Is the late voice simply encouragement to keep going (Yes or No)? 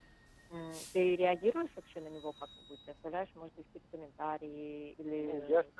No